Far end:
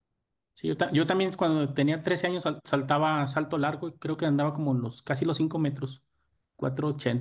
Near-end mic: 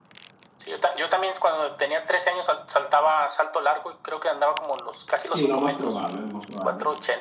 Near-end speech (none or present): present